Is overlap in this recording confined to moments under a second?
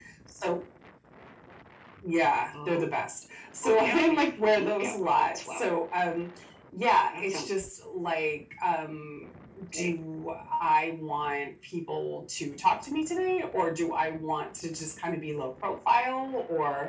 No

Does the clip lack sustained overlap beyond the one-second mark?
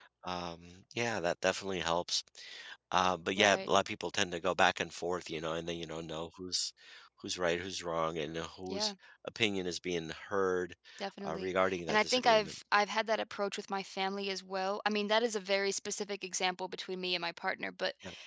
No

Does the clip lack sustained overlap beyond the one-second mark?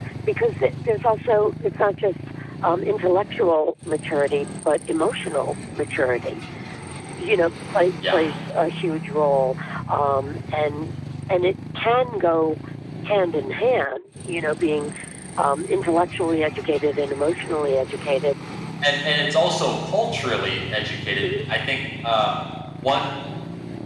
Yes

